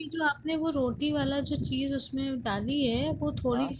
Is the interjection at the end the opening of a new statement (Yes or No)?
No